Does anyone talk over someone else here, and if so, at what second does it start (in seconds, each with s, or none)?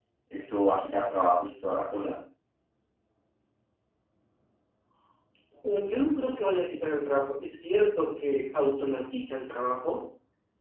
none